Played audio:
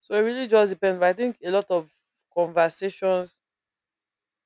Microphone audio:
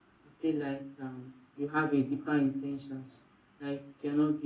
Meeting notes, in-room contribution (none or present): present